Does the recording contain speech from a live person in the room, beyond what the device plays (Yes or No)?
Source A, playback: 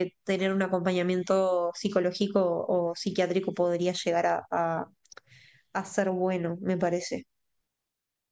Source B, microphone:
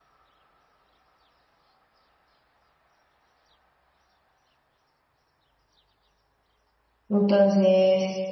Yes